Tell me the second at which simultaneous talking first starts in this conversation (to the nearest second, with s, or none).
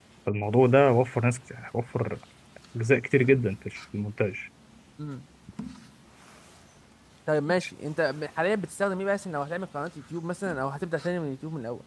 none